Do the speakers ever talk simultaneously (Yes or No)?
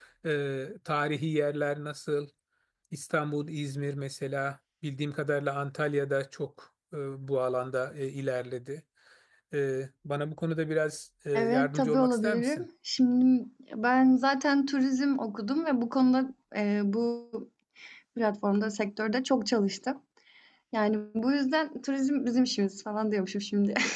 Yes